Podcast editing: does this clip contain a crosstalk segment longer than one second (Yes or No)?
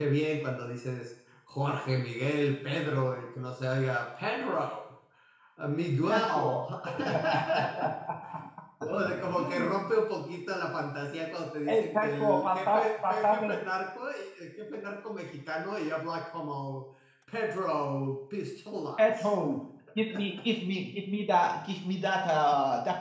Yes